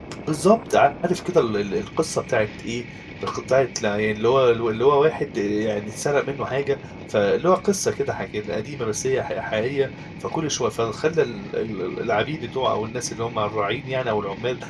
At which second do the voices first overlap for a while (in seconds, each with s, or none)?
none